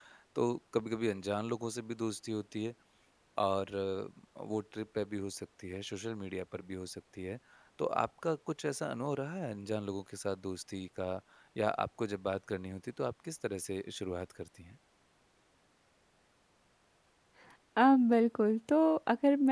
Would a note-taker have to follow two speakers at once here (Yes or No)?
No